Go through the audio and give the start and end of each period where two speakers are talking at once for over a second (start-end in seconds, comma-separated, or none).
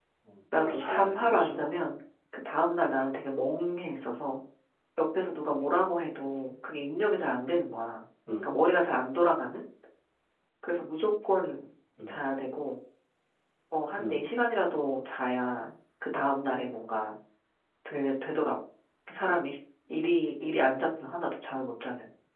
0.6-1.8